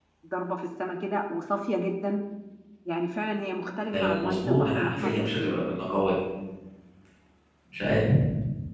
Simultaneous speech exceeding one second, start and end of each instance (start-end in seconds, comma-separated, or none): 3.9-5.5